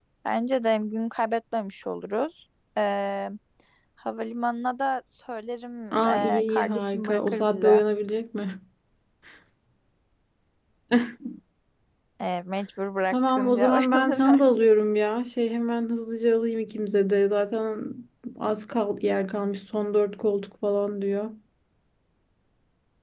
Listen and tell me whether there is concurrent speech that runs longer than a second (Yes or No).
Yes